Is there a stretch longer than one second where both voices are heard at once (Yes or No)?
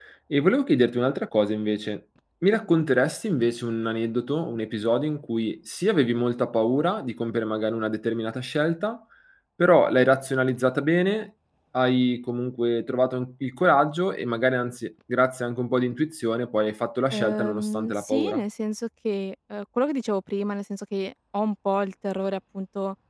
Yes